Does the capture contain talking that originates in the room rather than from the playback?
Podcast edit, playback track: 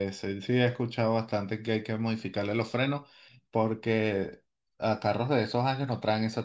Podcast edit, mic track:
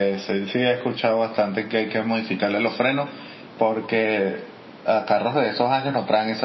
No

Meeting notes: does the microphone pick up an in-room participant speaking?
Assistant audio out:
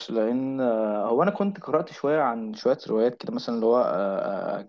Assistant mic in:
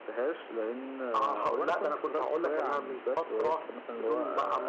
Yes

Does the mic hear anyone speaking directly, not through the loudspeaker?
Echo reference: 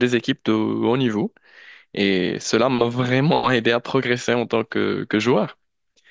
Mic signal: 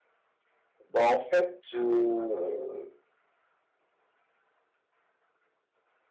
Yes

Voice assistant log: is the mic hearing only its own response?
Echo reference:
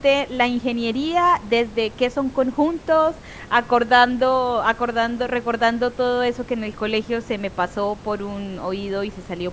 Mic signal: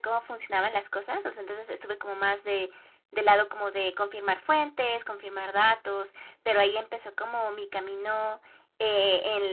No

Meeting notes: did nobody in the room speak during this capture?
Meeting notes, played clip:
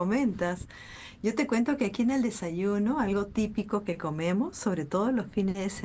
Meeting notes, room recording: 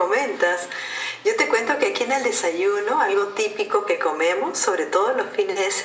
Yes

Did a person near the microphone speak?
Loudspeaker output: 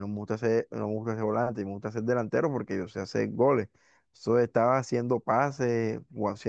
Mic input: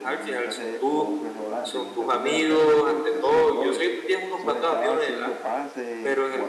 Yes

